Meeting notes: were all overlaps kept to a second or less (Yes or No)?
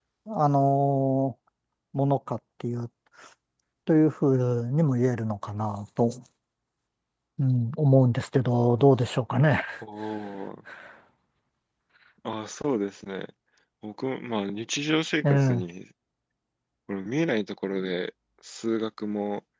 Yes